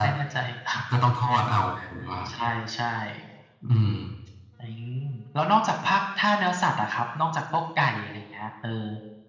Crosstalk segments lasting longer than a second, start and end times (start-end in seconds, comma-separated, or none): none